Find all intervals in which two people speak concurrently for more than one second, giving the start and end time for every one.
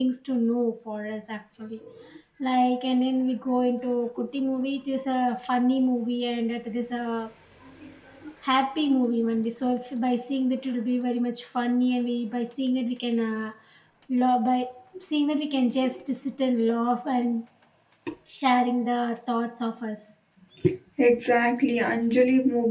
none

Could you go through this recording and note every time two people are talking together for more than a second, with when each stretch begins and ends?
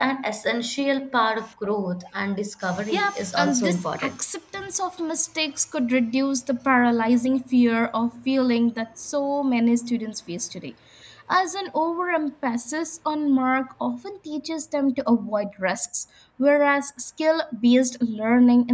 2.9-4.1

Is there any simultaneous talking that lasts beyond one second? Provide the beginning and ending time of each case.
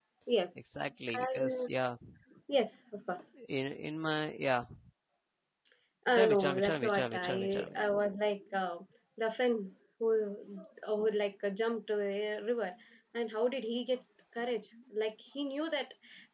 6.2-7.8

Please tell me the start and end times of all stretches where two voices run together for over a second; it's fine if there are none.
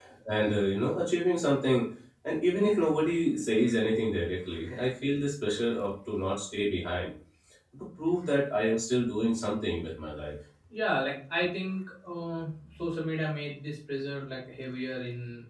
none

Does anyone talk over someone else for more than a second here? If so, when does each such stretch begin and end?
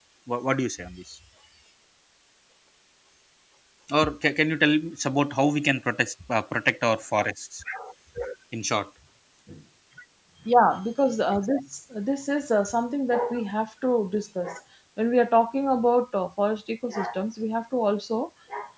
none

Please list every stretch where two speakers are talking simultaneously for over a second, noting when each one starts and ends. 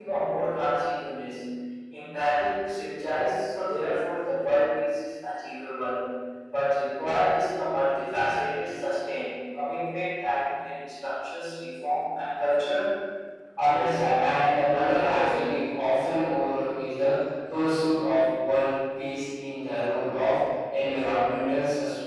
13.7-15.4

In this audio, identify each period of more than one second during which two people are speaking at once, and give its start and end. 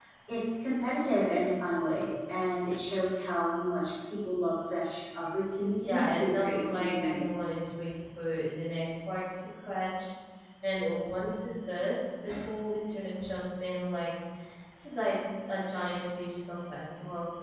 5.8-7.2

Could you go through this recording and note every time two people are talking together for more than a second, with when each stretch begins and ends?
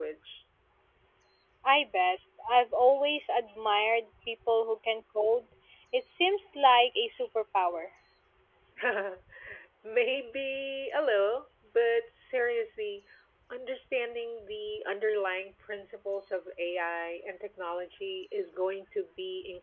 none

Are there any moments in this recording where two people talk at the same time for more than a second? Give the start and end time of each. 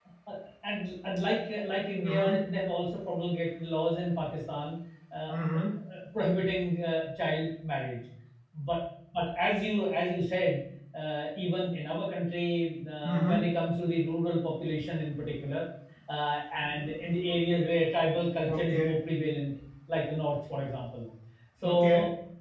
none

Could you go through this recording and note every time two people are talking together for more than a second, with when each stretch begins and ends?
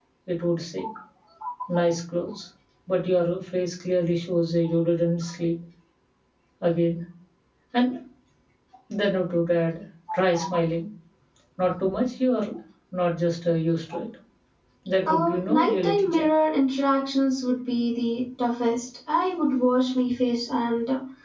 15.1-16.3

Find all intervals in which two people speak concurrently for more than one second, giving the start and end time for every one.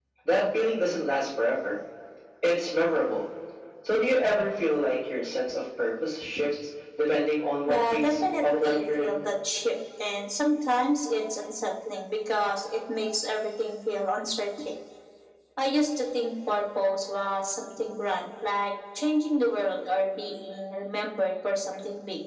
7.7-9.2

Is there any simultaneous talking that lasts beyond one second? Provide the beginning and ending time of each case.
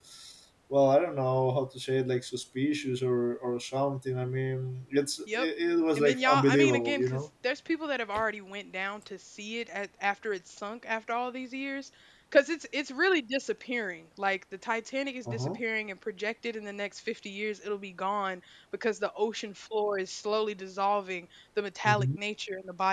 6.0-7.2

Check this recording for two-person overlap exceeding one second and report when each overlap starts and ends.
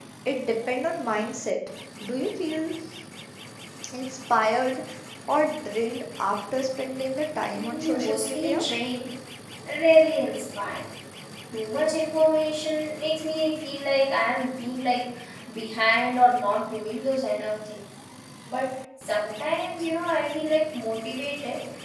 7.4-8.6

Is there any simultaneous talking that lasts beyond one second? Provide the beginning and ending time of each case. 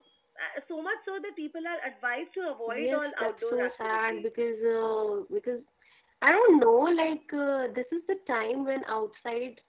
2.7-4.2

